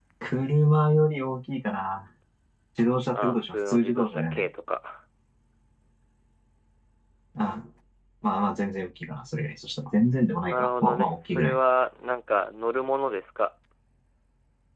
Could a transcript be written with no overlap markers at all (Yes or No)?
No